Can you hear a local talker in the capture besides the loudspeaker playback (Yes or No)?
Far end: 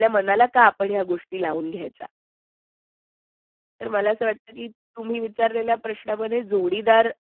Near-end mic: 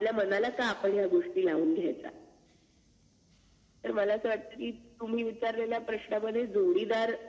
No